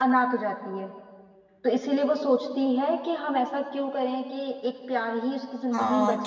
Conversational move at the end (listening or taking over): taking over